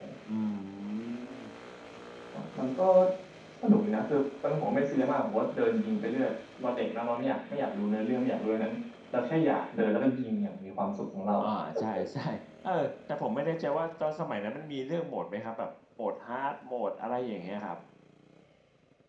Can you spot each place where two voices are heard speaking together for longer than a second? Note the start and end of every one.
none

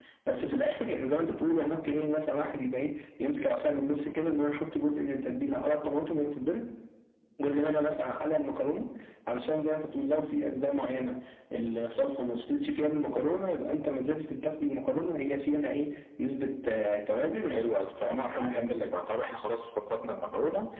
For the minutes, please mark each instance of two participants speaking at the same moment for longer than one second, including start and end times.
17.4-18.9

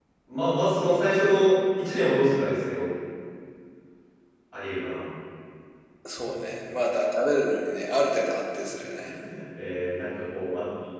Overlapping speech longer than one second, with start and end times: none

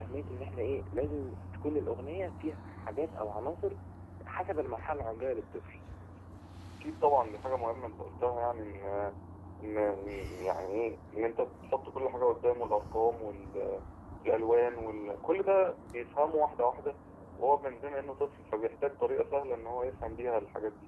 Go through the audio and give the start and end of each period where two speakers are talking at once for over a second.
none

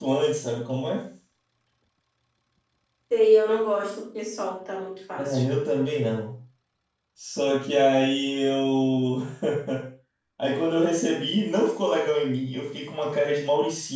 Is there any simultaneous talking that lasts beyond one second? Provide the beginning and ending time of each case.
none

